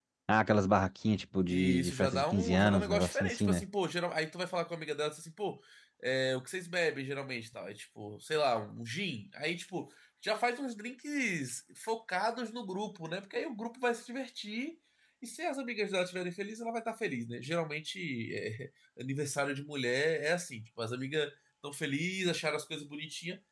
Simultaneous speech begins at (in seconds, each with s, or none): 1.5 s